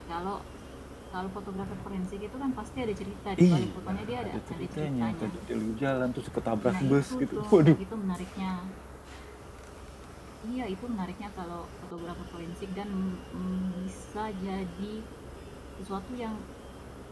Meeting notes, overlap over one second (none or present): present